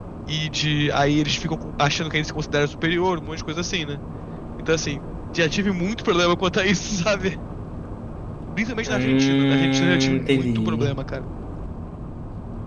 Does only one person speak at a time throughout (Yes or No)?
No